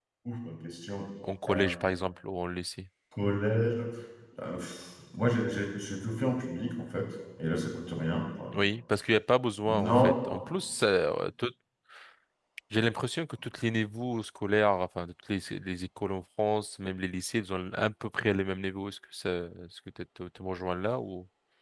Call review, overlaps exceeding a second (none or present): none